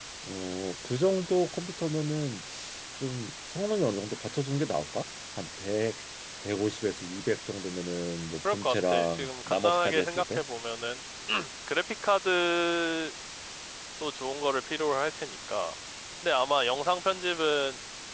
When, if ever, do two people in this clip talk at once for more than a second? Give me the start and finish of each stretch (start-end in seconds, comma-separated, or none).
8.4-10.4